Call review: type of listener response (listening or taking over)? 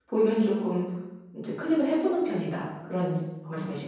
taking over